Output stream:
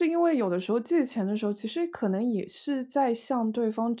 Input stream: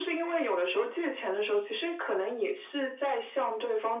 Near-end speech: none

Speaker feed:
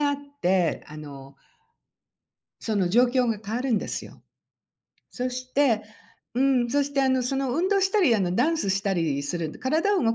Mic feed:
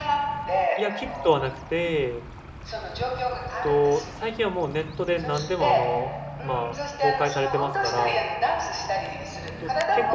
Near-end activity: present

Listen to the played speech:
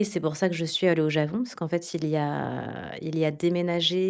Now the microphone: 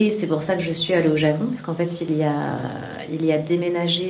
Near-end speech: none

